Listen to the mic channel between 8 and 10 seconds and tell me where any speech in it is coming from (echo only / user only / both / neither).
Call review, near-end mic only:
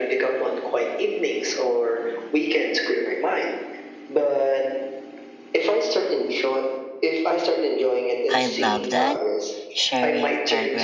both